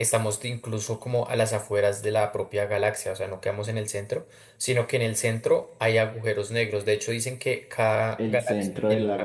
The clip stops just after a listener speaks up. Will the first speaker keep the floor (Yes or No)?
No